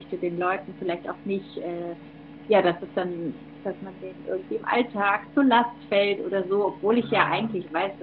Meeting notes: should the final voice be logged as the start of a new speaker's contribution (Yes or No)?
No